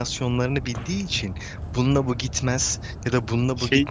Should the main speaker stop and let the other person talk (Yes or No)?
No